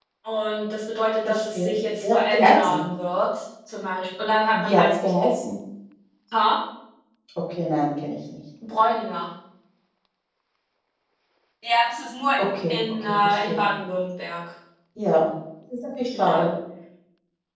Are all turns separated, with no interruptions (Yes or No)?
No